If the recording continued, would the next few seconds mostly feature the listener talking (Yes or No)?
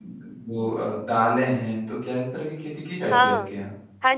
Yes